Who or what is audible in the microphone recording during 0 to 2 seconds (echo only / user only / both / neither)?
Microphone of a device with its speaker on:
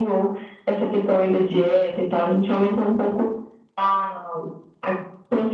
echo only